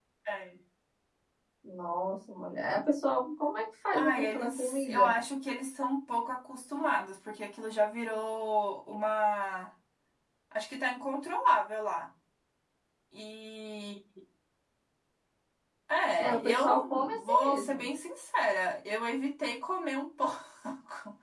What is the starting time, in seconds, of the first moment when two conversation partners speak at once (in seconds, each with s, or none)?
3.9 s